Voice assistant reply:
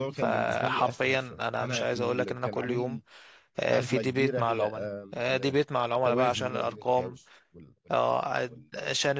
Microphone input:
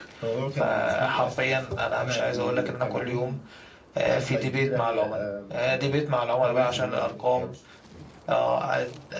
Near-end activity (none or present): none